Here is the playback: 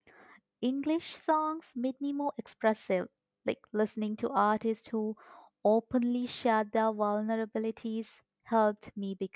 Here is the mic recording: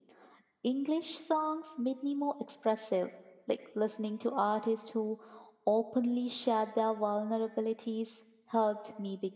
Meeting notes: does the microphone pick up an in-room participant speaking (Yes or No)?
No